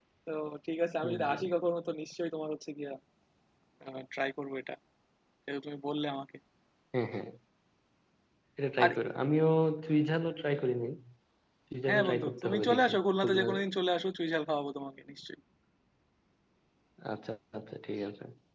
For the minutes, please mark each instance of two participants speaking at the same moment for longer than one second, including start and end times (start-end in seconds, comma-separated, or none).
11.9-13.5